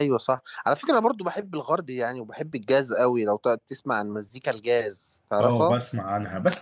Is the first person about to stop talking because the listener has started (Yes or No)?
Yes